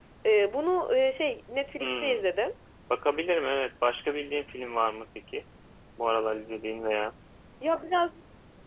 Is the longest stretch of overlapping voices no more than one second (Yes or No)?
Yes